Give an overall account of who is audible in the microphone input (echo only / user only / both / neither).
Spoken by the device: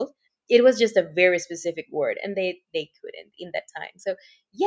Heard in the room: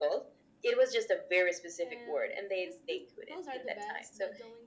both